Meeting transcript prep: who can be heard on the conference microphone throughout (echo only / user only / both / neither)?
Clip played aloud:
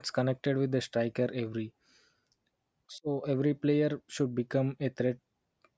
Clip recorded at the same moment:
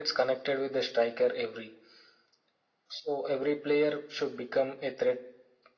echo only